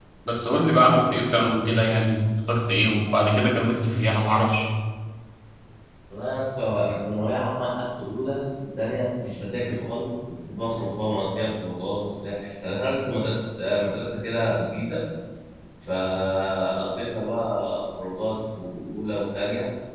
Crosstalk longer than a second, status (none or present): none